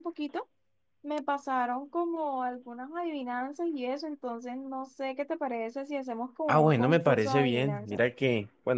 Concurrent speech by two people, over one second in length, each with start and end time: 6.5-8.0

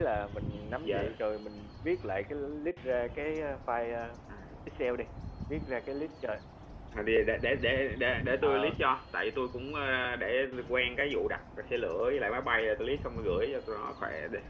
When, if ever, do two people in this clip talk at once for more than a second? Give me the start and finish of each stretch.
none

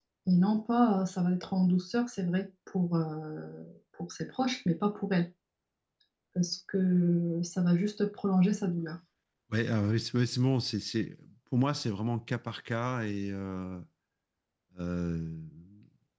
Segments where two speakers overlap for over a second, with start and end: none

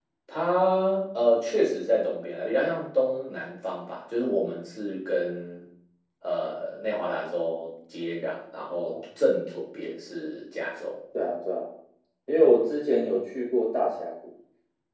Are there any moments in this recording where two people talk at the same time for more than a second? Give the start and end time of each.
none

